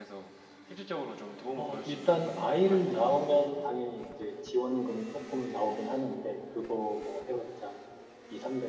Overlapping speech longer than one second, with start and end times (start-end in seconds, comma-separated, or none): 1.6-3.0